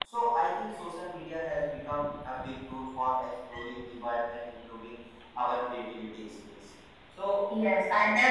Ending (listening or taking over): taking over